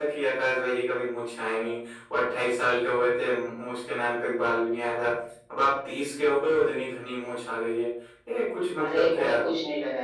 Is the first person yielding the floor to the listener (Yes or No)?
Yes